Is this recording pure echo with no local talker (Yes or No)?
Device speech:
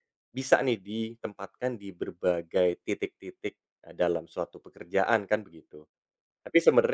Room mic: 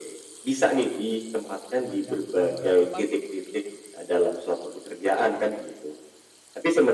No